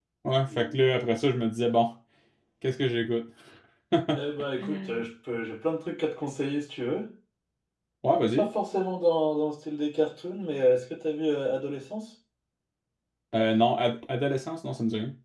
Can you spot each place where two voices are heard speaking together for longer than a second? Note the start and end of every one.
none

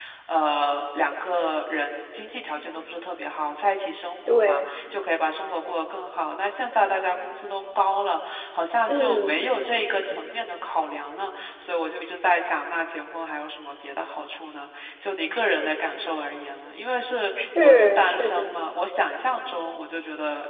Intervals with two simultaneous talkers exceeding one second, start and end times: 17.4-18.6

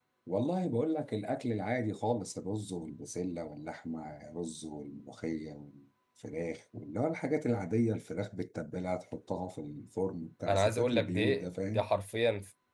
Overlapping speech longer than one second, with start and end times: 10.5-11.9

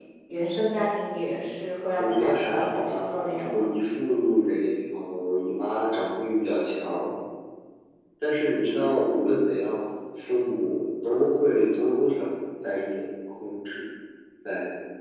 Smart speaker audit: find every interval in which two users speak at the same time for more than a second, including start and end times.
2.0-3.7

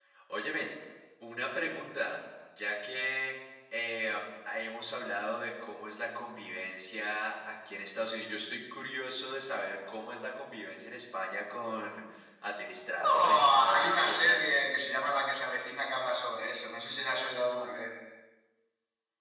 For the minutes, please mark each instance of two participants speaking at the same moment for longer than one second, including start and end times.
13.0-14.5

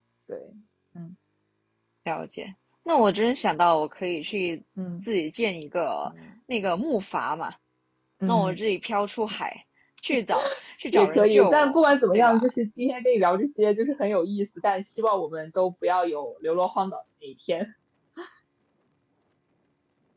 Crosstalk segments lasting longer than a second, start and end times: 10.9-12.5

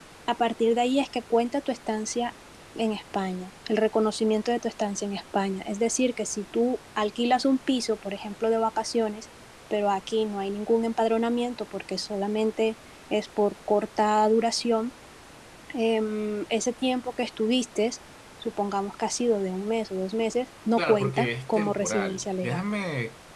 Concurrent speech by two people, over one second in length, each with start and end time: 20.8-22.6

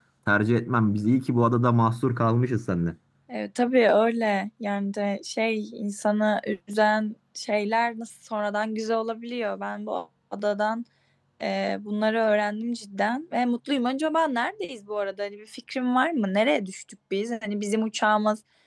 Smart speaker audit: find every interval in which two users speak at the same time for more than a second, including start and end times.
none

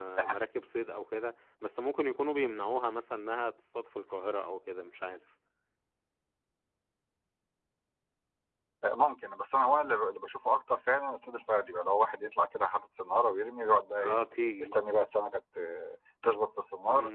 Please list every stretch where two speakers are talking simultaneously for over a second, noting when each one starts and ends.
none

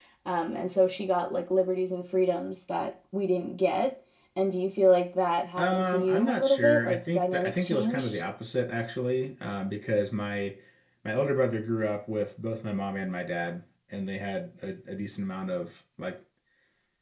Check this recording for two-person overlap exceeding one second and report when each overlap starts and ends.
5.6-8.2

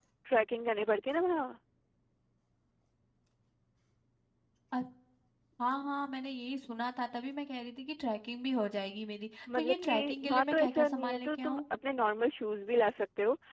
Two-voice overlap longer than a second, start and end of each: 9.6-11.6

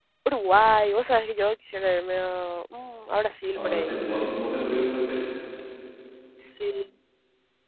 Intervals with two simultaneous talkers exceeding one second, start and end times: none

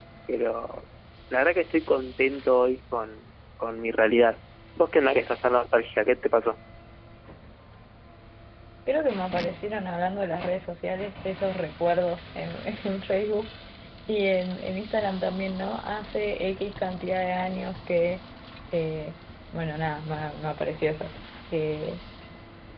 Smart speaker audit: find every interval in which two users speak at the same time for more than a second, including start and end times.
none

